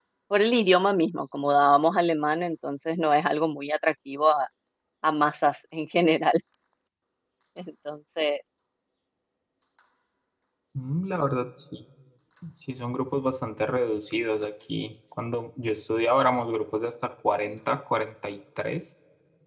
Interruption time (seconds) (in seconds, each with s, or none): none